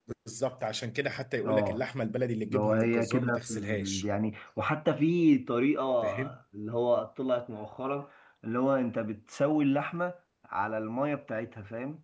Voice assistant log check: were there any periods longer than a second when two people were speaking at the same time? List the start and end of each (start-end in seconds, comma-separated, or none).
2.5-4.0